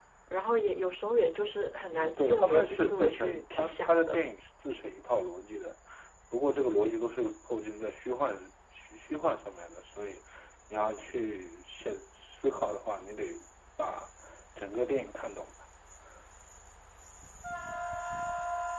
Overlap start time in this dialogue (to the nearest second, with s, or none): 2 s